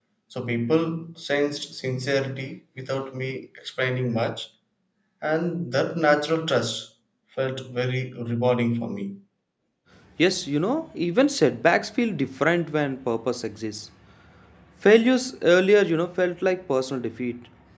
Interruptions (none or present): none